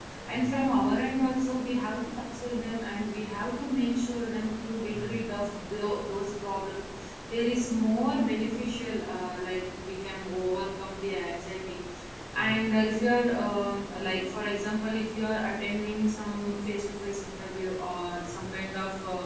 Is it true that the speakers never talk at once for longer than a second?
Yes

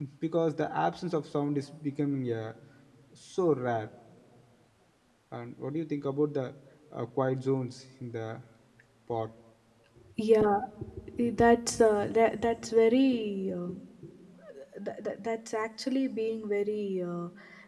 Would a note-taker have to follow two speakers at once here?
No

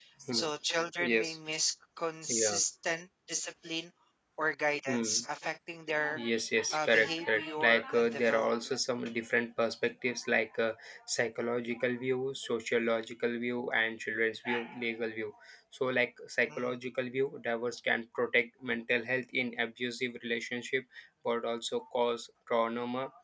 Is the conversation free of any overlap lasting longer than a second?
No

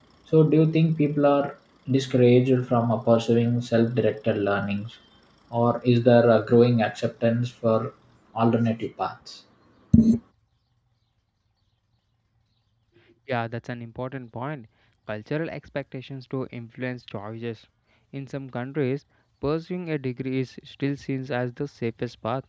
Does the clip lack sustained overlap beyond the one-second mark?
Yes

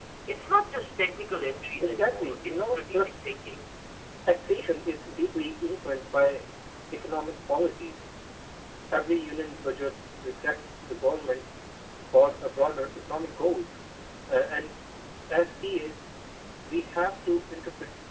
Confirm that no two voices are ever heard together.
No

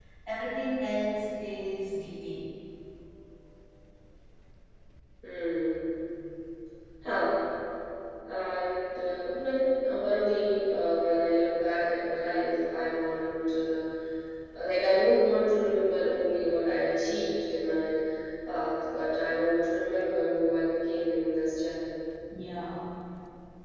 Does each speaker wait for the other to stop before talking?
Yes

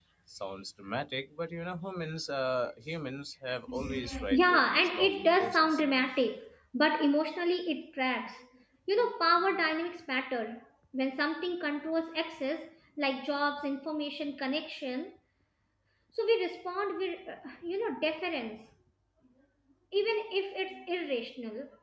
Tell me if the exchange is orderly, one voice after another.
No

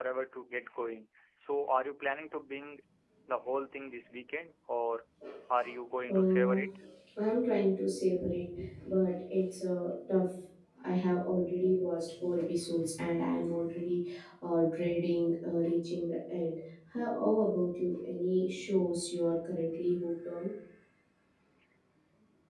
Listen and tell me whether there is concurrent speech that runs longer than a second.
No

